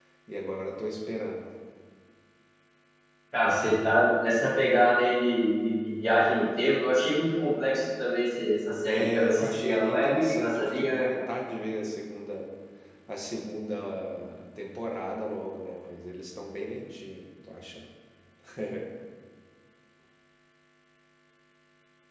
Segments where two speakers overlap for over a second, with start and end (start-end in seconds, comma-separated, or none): 8.9-11.1